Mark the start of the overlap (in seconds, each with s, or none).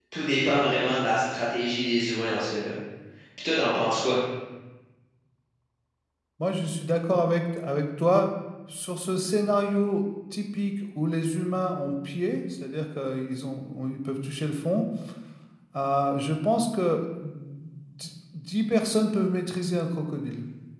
none